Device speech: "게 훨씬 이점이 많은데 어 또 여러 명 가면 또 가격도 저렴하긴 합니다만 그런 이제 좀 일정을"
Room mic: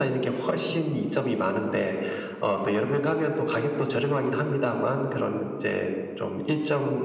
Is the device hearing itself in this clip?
Yes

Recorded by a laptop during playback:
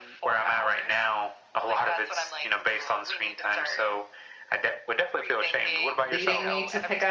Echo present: Yes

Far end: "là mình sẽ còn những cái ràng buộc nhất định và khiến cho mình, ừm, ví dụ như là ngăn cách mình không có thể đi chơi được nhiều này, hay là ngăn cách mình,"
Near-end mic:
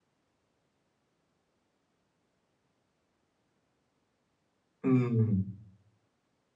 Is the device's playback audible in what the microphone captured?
No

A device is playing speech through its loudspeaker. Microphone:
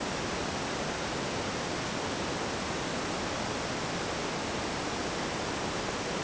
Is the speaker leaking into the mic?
No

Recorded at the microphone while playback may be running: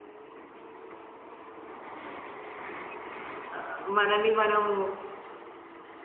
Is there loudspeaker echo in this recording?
No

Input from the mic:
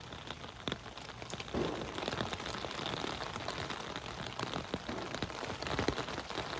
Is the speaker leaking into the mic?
No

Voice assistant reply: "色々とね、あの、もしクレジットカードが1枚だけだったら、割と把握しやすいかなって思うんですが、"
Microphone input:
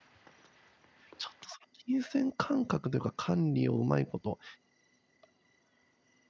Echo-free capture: Yes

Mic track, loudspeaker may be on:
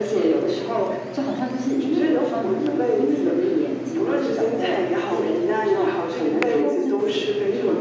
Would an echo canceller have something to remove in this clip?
Yes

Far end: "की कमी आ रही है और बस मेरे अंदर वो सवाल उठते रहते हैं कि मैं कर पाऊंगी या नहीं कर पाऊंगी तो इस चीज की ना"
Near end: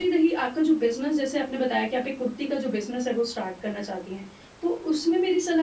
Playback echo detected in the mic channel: No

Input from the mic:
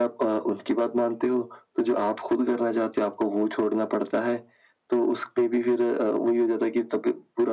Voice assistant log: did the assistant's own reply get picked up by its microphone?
Yes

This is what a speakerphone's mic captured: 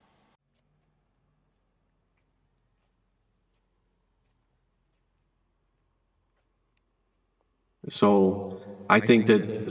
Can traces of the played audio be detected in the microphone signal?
No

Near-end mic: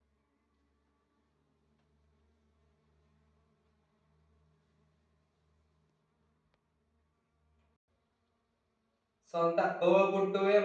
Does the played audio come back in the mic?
No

